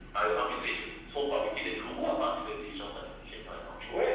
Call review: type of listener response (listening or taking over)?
taking over